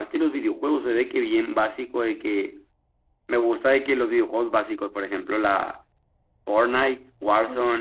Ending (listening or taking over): listening